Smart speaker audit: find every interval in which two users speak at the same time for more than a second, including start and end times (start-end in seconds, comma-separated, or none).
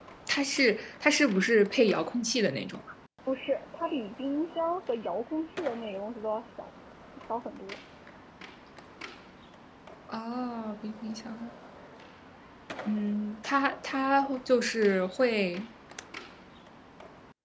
none